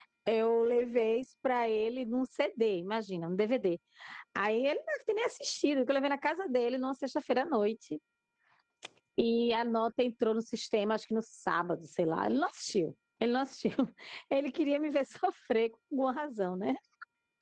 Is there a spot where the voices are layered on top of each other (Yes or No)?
No